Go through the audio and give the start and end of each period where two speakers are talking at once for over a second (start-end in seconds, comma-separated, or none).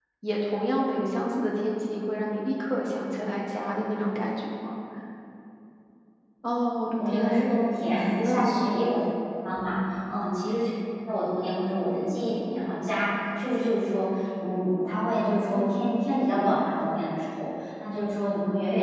none